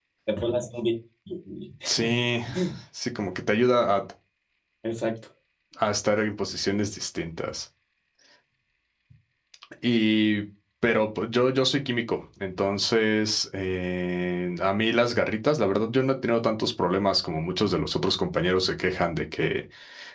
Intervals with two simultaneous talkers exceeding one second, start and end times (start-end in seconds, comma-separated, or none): none